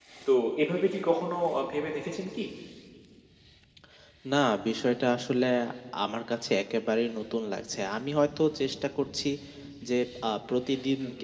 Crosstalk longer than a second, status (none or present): none